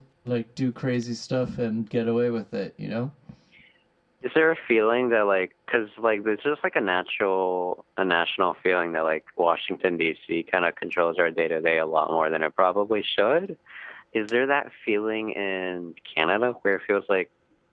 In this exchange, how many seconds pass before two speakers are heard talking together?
none

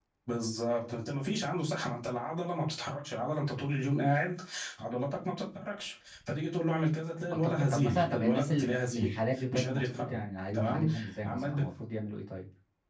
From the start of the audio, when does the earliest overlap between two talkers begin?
7.3 s

